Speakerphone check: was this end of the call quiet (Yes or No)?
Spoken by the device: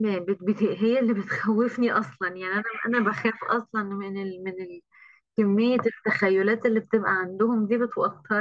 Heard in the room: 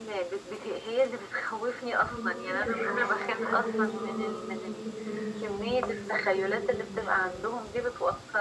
No